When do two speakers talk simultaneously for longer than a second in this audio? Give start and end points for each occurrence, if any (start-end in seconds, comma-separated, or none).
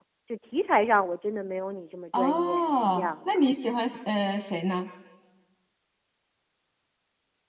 2.2-3.4